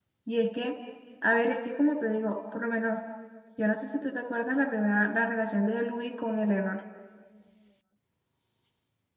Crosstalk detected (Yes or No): No